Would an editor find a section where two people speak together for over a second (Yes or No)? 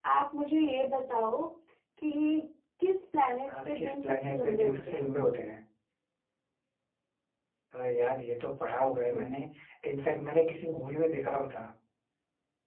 Yes